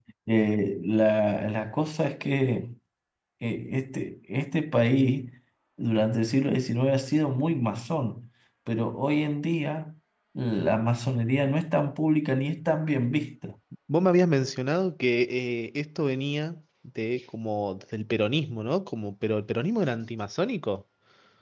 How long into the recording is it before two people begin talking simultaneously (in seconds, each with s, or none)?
none